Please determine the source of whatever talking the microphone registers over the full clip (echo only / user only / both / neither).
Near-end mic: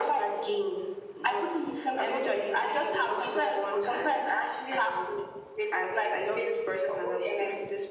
echo only